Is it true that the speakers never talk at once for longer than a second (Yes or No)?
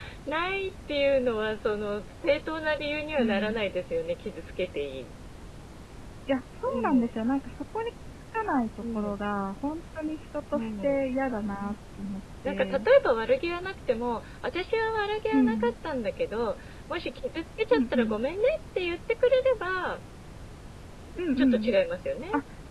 Yes